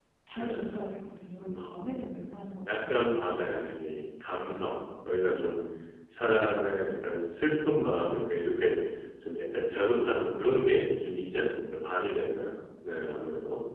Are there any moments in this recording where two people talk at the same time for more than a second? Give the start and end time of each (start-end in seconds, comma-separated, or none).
none